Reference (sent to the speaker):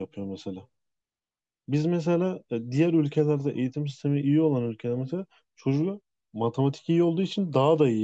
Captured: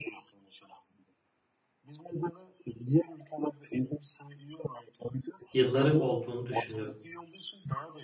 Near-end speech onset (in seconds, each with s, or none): 5.5 s